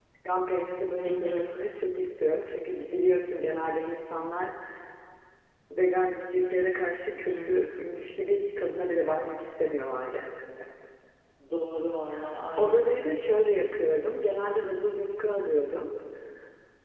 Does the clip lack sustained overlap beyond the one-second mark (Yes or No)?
Yes